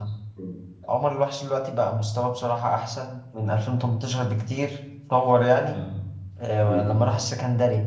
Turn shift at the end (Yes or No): No